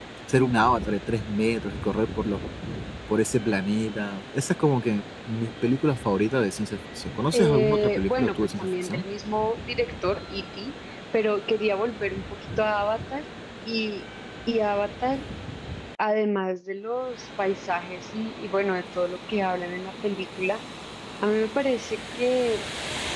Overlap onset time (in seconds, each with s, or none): 7.3 s